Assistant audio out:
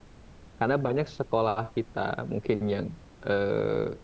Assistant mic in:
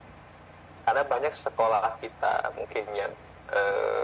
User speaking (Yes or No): No